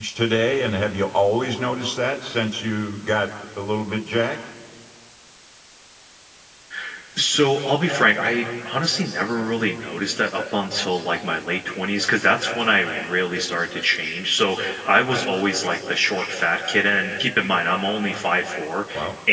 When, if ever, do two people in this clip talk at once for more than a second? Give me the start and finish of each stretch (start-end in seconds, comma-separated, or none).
none